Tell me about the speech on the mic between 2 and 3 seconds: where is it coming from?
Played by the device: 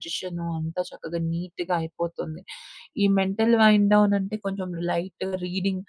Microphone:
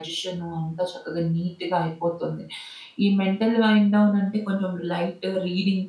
echo only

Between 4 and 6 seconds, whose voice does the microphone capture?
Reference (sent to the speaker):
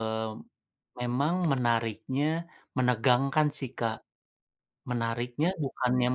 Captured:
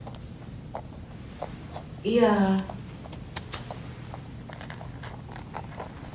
neither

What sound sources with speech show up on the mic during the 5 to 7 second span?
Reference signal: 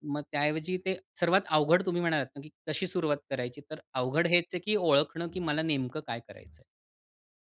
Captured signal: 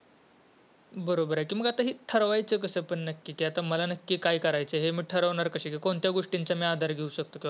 user only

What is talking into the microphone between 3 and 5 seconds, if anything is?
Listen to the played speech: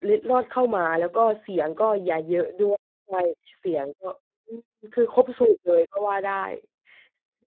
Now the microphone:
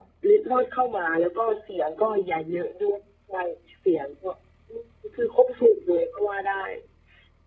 echo only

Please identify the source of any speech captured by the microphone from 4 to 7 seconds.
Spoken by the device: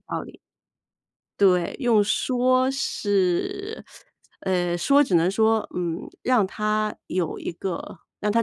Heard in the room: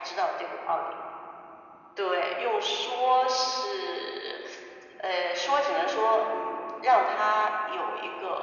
echo only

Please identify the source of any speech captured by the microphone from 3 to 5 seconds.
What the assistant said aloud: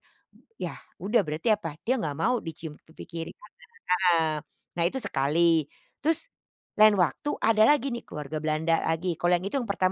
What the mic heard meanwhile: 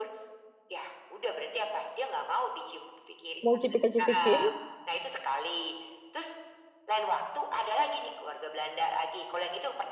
both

